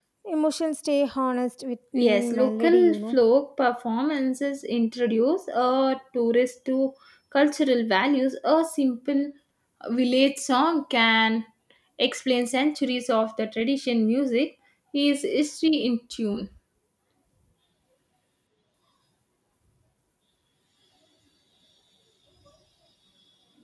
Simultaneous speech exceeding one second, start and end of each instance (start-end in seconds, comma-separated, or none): 2.0-3.2